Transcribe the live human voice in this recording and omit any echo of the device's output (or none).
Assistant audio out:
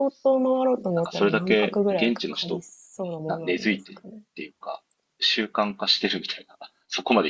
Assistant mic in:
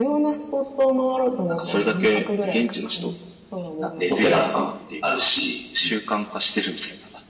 お寺とかもあるし、うん